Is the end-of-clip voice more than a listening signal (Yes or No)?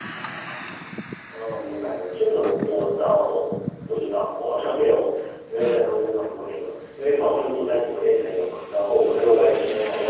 No